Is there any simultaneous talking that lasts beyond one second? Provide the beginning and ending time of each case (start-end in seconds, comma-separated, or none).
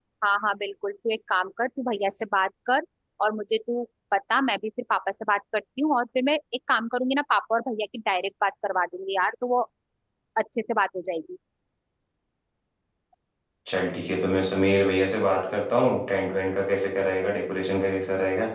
none